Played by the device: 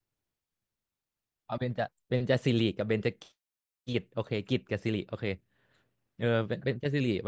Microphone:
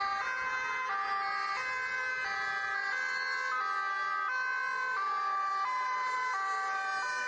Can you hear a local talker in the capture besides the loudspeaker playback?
No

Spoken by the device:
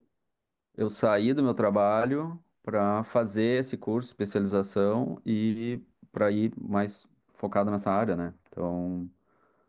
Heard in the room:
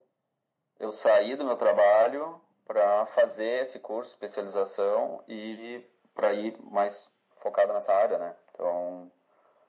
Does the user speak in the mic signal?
No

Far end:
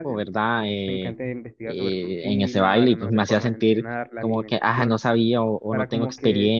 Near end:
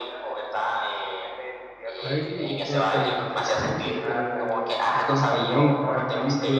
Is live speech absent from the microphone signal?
No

